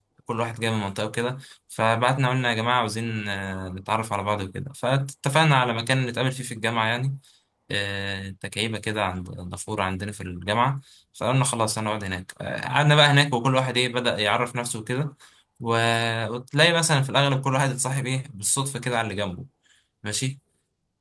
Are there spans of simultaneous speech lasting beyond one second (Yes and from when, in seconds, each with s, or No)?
No